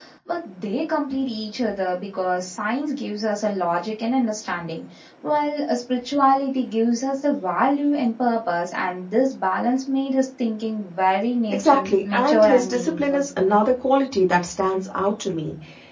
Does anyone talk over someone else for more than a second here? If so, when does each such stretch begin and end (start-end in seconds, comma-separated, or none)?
11.5-13.3